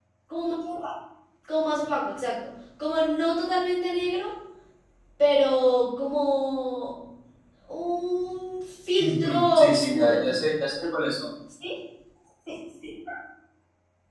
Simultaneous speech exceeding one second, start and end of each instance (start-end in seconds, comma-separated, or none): 9.0-10.3